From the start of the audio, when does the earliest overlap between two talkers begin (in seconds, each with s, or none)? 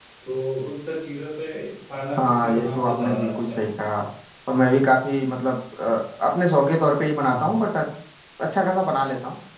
2.2 s